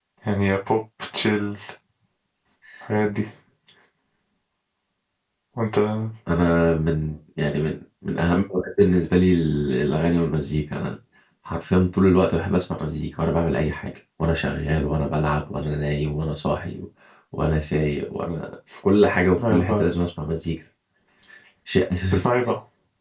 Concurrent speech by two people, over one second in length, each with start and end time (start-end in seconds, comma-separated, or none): none